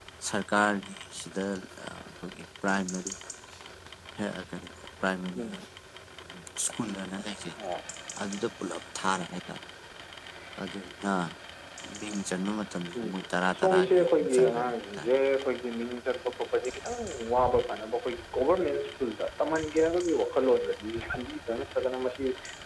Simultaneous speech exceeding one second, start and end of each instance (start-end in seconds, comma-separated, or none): 13.6-15.1